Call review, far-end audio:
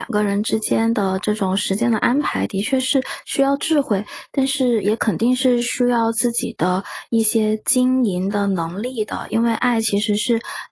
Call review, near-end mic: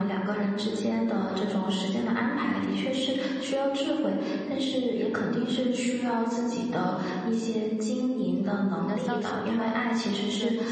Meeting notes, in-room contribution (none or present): present